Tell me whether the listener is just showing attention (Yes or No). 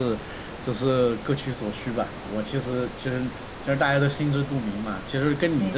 Yes